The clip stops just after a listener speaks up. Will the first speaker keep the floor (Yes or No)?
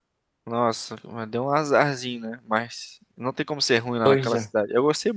Yes